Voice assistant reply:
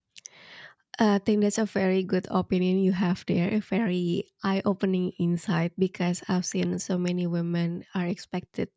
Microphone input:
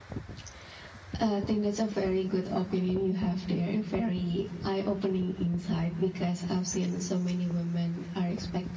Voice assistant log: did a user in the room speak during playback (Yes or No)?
No